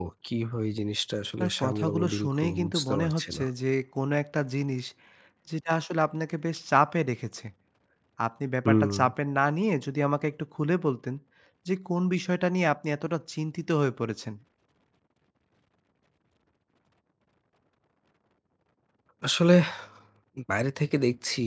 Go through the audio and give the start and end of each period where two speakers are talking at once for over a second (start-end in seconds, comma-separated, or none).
1.4-3.4